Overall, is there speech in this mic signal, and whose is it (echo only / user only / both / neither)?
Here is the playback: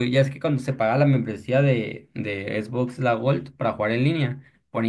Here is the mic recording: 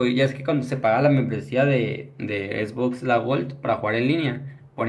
echo only